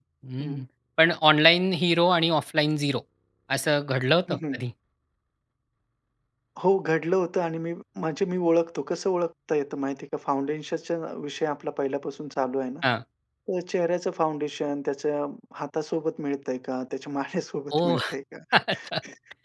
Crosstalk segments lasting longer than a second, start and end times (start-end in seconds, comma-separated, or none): none